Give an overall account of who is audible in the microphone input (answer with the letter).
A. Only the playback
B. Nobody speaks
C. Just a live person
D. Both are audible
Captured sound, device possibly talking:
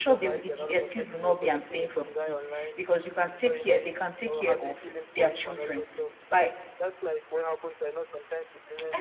D